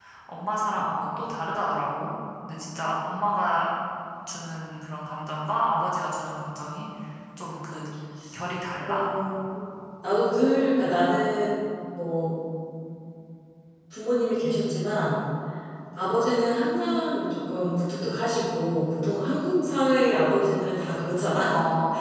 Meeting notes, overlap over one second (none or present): none